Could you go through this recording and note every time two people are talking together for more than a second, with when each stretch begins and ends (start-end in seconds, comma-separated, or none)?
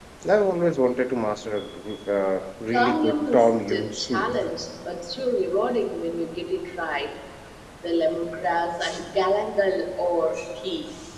2.7-4.3